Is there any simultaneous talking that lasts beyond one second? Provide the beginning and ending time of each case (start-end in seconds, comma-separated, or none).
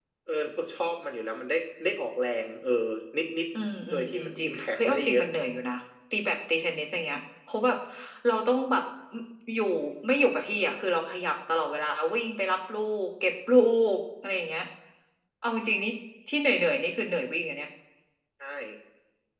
3.9-5.2